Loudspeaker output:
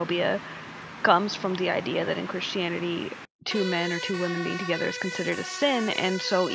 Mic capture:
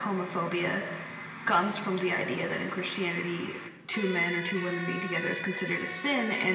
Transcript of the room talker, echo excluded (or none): none